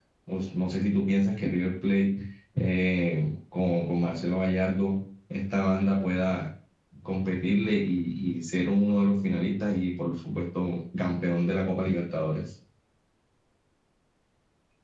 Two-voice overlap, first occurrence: none

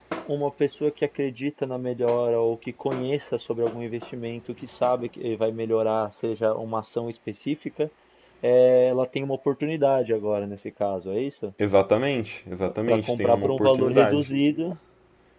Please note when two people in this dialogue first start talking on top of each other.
13 s

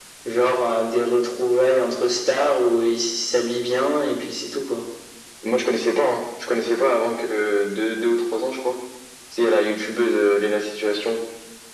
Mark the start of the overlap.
none

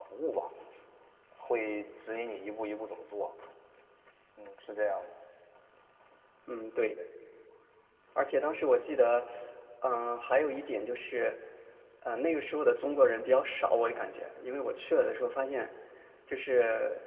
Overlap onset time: none

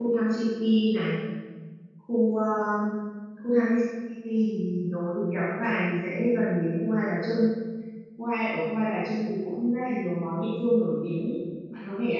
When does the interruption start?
none

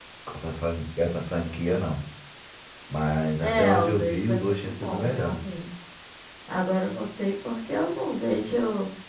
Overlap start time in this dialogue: 3 s

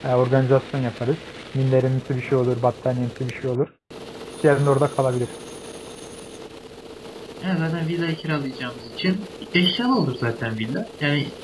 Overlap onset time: none

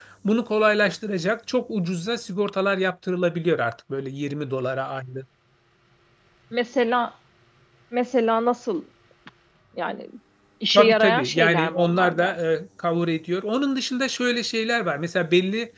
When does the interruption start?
11 s

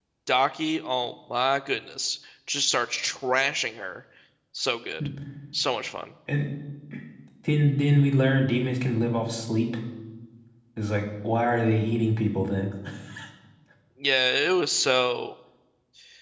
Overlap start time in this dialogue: none

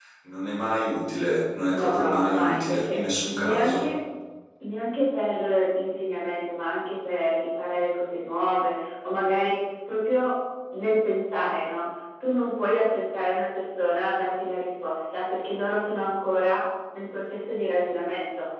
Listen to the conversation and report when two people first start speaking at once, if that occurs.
2 s

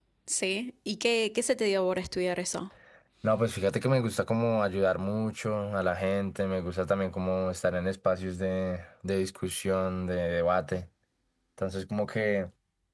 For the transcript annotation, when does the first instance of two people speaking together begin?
none

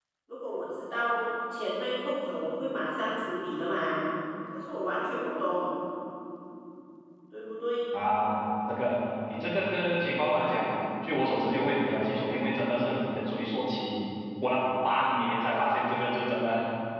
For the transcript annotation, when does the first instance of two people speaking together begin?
none

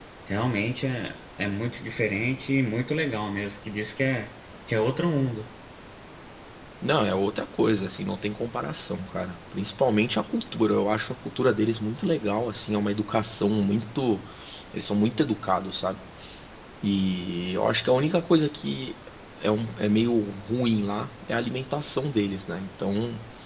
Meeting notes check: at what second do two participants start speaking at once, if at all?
none

